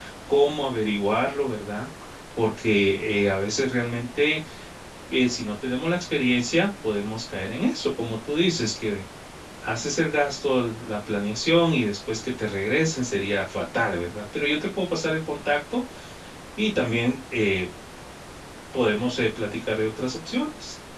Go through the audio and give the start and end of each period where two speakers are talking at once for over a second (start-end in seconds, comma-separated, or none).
none